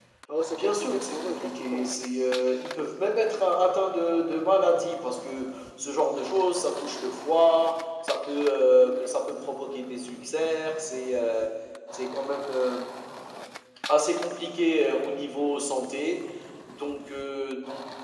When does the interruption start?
0.5 s

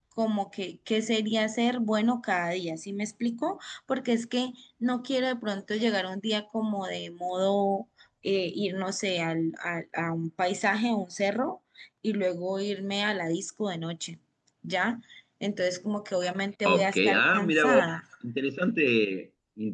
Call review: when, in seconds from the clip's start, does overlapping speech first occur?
16.6 s

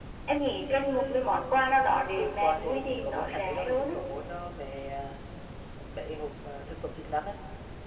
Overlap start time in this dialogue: 2.2 s

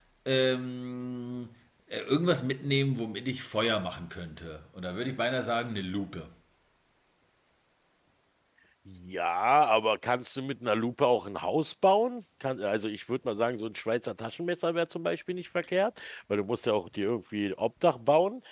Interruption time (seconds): none

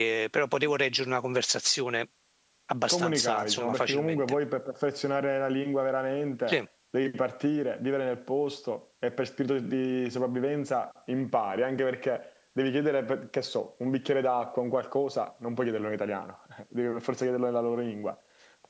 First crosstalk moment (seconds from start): 2.9 s

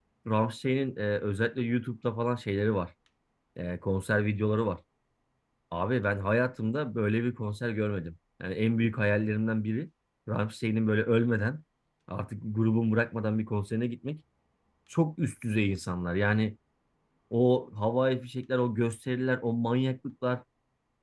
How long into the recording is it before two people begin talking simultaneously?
none

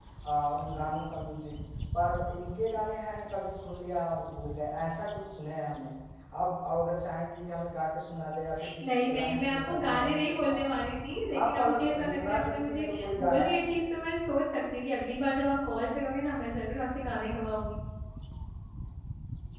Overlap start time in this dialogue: 8.9 s

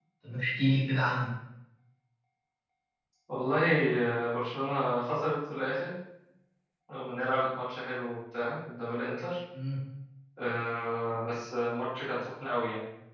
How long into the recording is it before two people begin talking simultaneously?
none

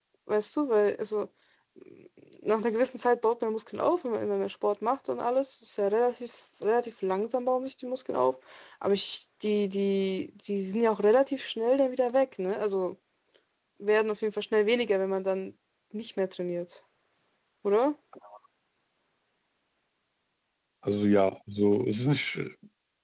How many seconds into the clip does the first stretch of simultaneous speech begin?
none

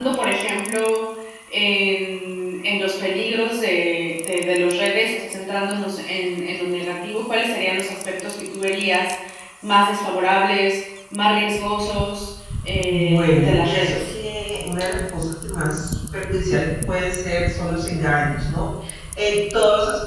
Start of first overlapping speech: 12.9 s

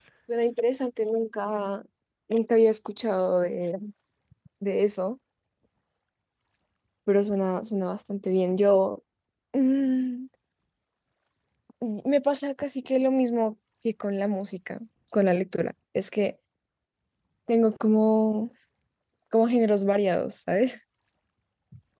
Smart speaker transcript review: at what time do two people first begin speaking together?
none

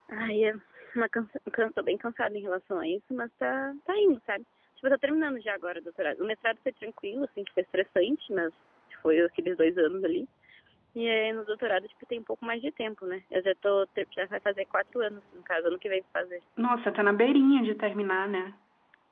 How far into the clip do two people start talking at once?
none

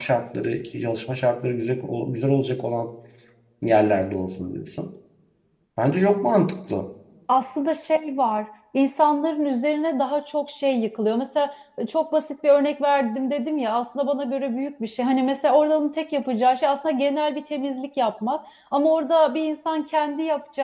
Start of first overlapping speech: none

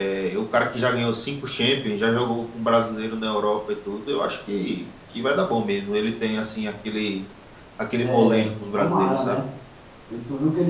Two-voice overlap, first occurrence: 8.0 s

